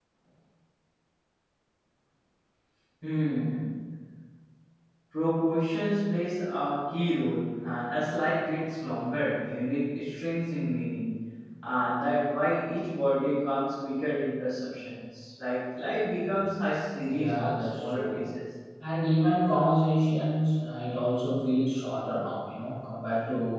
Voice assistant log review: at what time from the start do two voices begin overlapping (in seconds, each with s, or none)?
17.1 s